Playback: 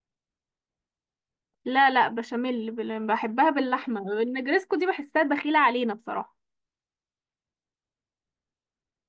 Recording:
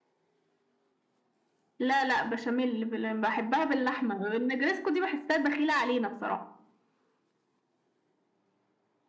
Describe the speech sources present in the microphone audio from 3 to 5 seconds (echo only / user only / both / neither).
echo only